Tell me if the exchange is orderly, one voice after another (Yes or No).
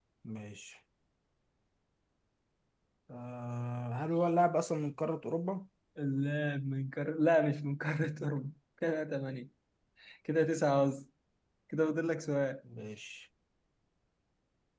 Yes